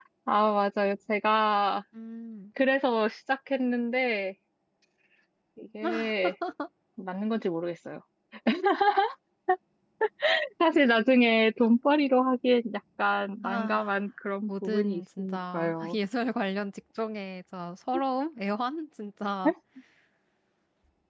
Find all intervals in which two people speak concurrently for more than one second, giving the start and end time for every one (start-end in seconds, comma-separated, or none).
14.5-16.0